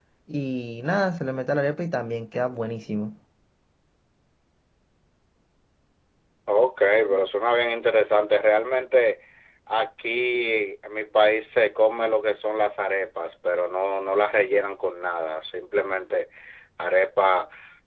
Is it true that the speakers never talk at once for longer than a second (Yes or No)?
Yes